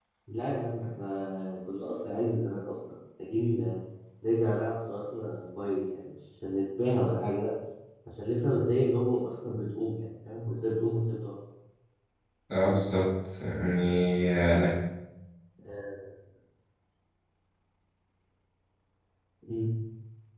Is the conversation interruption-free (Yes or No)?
Yes